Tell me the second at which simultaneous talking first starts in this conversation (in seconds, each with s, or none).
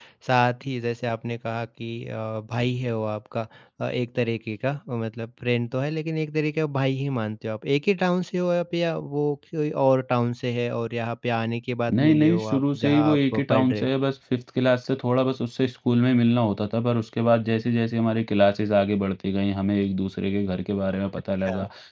12.0 s